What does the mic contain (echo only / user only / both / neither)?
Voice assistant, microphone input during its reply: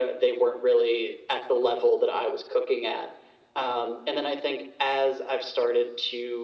echo only